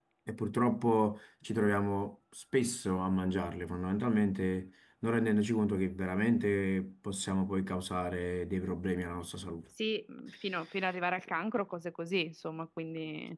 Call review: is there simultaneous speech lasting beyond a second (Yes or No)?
No